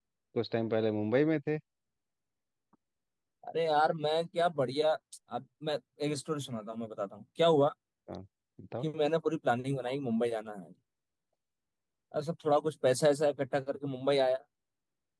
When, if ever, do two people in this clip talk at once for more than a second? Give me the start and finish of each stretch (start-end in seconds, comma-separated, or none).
none